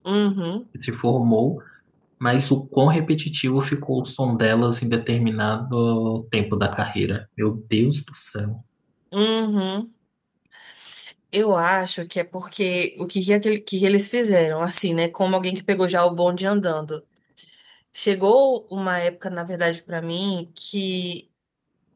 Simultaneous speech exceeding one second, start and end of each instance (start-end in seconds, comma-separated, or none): none